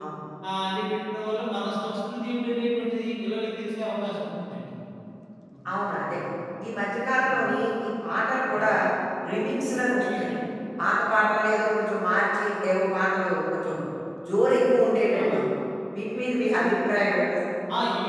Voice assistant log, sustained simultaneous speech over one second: none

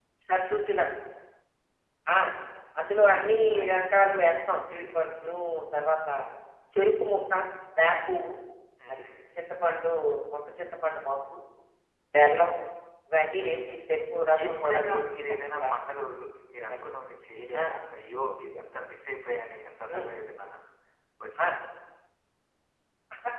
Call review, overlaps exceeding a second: present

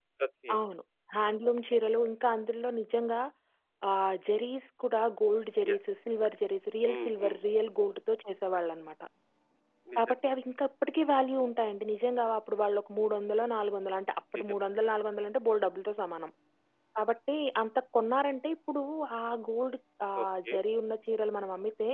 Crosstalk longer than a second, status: none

